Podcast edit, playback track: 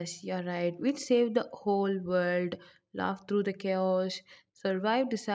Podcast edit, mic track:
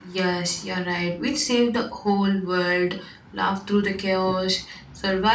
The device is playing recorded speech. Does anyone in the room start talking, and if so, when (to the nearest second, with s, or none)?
none